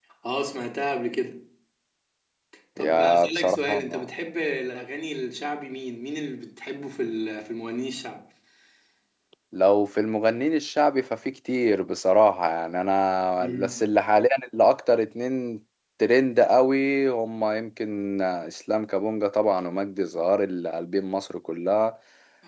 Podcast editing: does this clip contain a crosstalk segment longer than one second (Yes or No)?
Yes